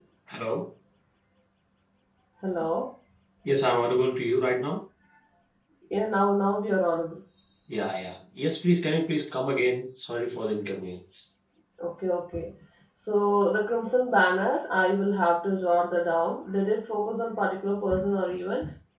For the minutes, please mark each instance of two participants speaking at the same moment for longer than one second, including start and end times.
none

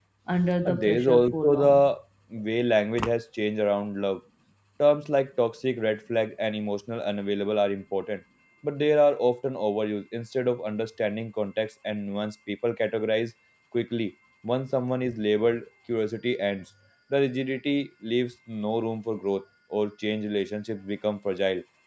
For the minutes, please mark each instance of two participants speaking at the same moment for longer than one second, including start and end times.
0.6-1.9

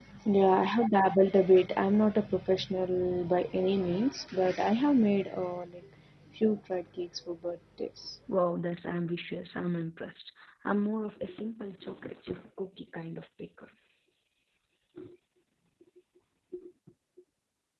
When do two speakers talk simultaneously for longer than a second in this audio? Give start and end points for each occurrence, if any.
none

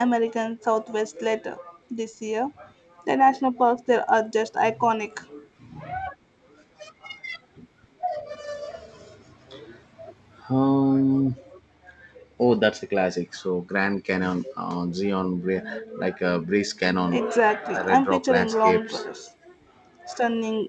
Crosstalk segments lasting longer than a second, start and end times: 17.1-19.1

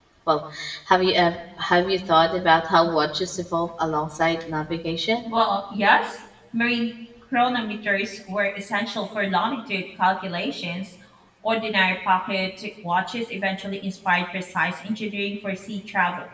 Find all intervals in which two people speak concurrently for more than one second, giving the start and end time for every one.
none

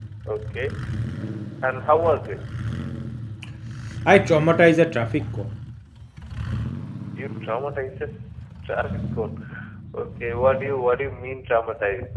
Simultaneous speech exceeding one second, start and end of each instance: none

